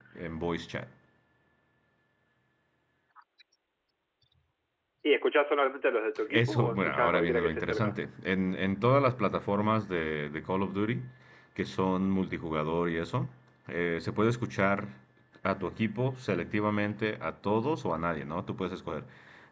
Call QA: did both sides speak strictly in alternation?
No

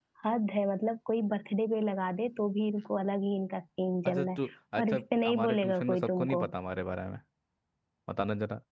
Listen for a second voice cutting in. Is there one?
Yes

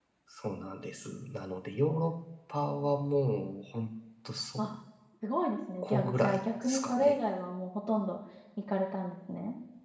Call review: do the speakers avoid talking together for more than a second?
No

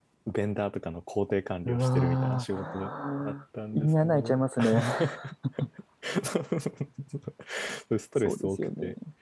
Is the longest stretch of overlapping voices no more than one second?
No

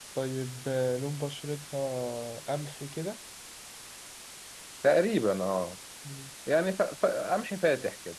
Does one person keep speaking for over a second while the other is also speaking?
No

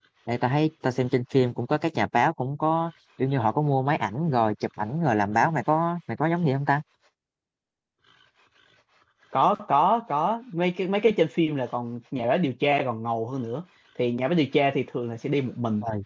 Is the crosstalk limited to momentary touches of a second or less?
Yes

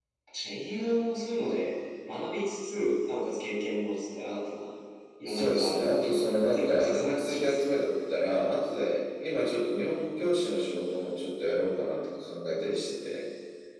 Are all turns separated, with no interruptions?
No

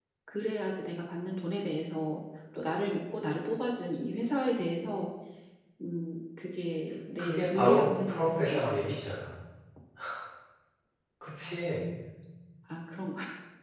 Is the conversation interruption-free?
No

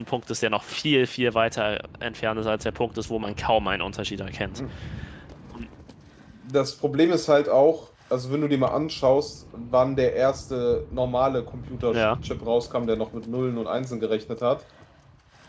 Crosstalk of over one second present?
No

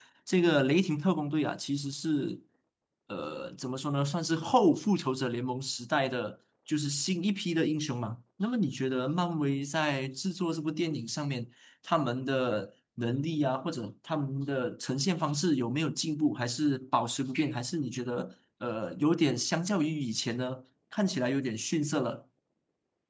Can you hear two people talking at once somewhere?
No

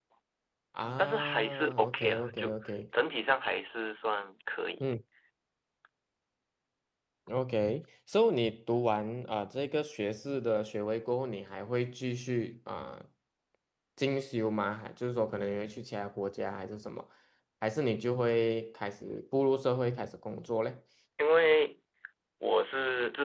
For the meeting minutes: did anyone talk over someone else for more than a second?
Yes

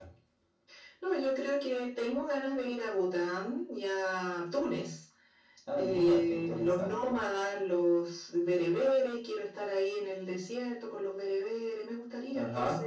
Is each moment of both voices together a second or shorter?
No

